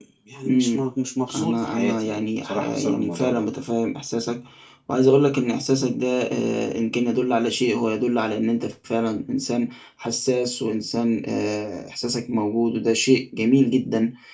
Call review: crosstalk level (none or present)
present